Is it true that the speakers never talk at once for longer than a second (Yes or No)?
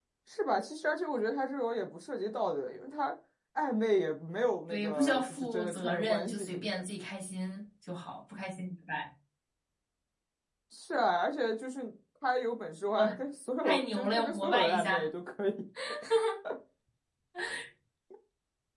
No